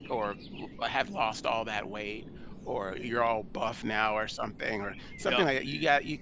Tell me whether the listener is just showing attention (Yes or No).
Yes